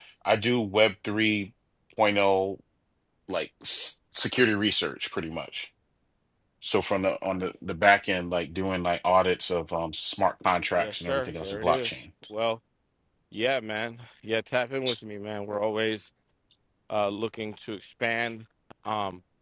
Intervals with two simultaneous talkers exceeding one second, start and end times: 10.8-12.0

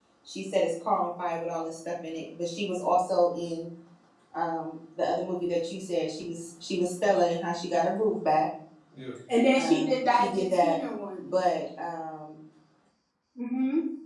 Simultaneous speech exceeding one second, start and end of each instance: 9.6-10.8

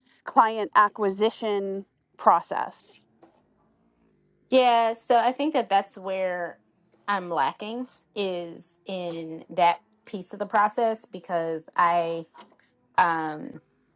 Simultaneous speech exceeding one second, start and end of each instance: none

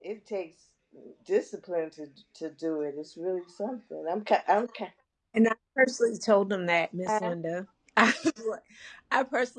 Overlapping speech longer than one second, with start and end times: none

